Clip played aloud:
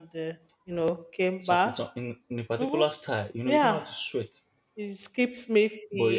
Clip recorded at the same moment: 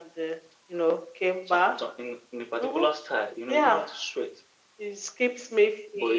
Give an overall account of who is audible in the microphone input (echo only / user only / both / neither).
echo only